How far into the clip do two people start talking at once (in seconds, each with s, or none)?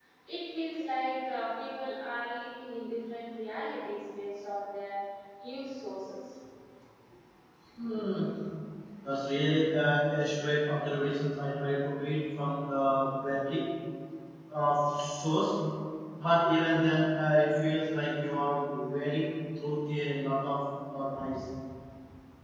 none